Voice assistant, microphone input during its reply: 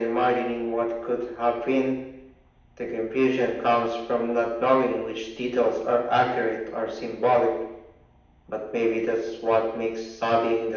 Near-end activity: none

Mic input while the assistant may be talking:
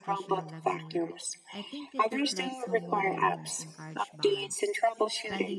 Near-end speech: present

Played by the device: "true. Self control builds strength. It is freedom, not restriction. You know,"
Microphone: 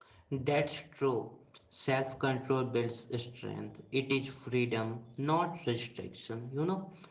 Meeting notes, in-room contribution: none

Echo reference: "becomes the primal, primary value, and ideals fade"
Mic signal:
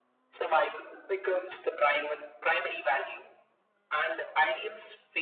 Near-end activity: none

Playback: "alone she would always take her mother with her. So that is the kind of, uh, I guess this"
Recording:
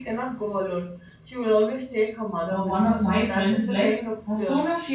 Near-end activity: present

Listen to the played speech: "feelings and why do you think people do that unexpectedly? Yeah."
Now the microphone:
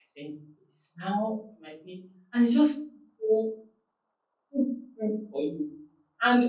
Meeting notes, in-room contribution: present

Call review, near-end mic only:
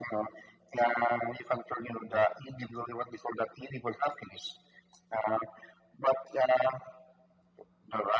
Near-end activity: none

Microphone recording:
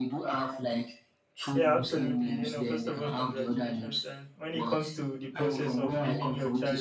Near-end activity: present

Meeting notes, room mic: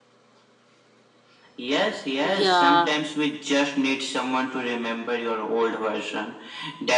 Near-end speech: present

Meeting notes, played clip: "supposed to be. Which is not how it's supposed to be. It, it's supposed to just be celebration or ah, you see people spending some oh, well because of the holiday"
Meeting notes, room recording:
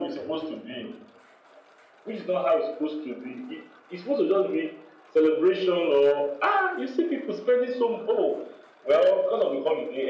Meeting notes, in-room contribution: none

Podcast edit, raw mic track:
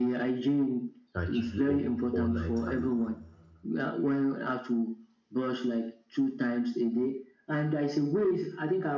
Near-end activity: present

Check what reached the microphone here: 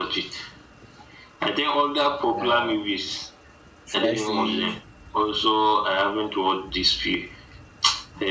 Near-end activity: present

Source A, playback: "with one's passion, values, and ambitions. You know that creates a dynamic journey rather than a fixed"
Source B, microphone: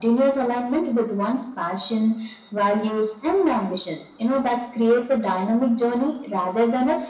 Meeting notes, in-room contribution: none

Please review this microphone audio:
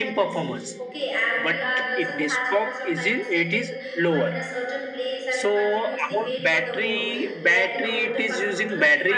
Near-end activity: present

